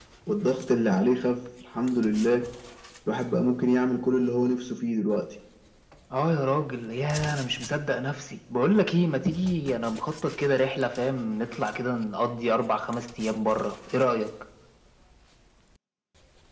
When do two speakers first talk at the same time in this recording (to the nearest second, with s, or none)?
none